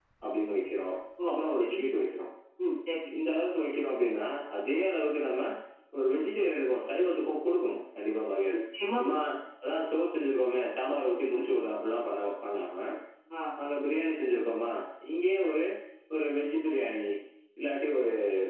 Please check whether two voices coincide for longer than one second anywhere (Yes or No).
No